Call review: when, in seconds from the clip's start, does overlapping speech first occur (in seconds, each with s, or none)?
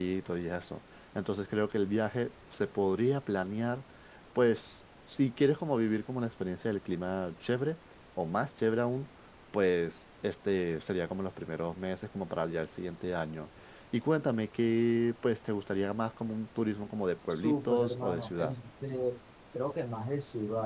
17.3 s